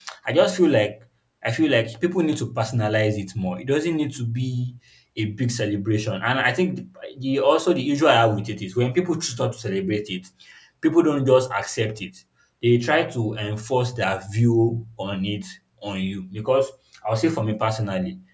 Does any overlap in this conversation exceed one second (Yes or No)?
No